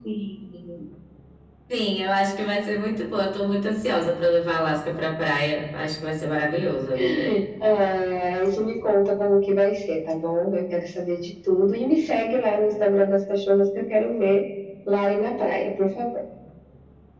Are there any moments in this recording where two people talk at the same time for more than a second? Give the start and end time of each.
none

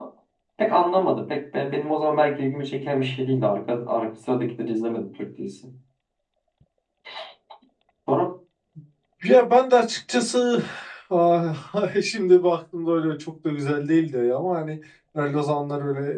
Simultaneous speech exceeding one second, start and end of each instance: none

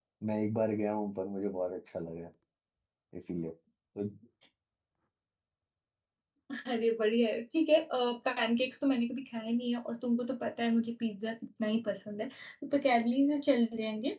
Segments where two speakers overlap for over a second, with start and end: none

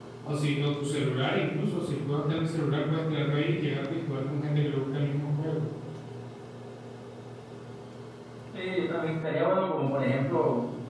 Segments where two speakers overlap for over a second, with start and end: none

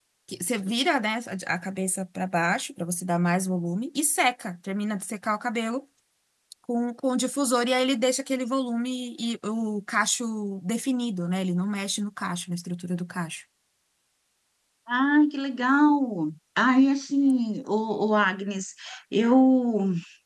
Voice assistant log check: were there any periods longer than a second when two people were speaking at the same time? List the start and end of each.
none

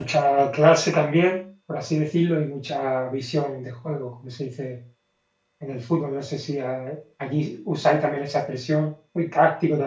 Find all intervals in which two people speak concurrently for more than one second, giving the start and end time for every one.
none

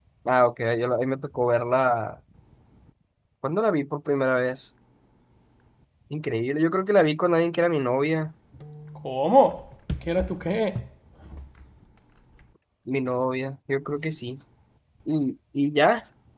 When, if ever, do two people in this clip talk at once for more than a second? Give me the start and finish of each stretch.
none

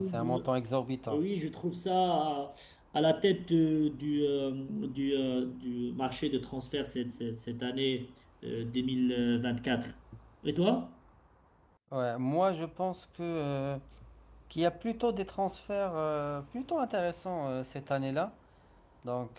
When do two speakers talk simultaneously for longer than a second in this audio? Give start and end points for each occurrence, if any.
none

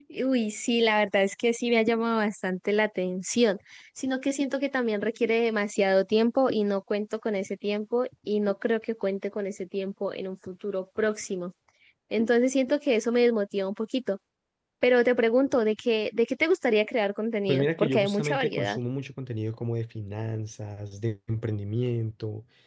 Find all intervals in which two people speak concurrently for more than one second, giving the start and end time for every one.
17.5-18.8

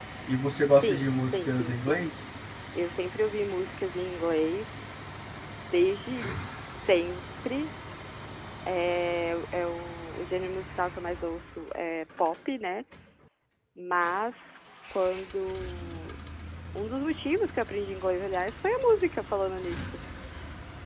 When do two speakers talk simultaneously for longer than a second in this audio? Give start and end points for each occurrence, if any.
0.8-2.0

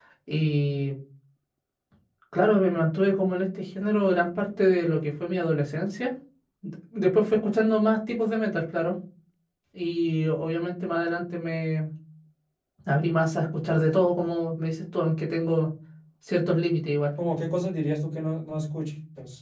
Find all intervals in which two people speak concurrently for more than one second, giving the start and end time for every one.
none

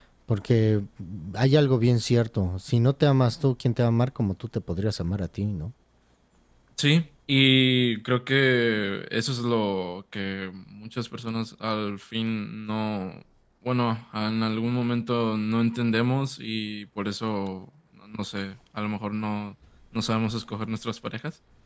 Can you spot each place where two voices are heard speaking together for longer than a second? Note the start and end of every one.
none

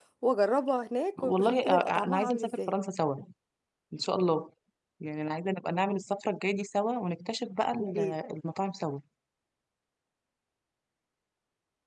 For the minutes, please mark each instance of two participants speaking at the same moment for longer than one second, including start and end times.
1.2-2.7

